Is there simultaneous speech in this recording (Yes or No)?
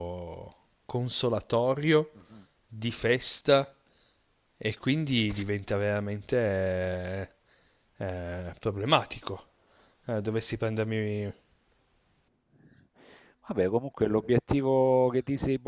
No